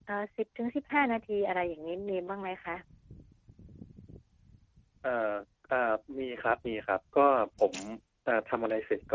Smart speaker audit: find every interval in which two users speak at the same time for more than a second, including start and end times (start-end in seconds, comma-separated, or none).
none